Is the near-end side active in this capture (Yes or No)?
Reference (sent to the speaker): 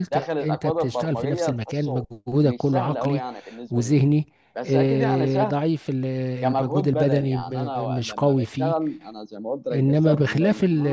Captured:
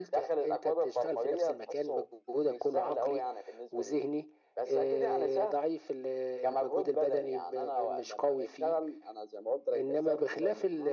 No